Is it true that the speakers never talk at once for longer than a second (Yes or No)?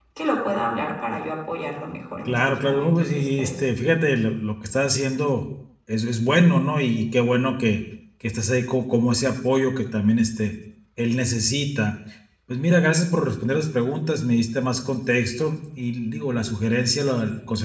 No